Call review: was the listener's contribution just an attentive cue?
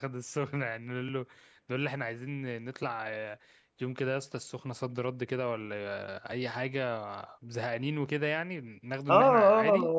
No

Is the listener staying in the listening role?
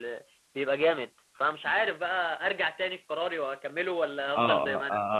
No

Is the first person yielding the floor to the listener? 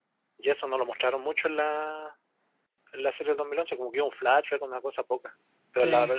No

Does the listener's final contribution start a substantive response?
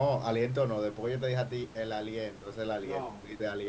No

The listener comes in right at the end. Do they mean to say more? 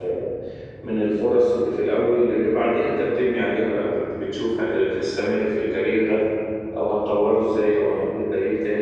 No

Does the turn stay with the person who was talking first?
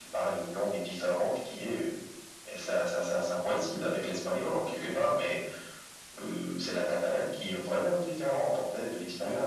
Yes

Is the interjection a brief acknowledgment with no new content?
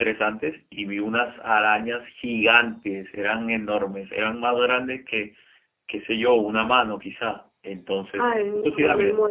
No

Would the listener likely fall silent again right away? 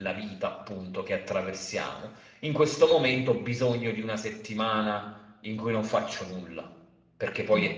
No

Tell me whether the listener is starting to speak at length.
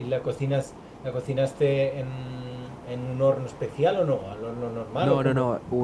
Yes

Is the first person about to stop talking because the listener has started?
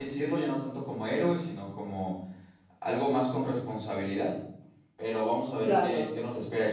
No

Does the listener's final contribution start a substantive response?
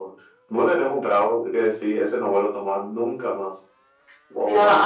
Yes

